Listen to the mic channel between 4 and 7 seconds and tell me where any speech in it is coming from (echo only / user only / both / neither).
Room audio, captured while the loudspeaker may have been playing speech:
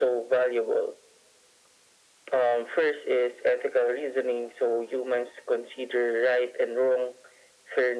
echo only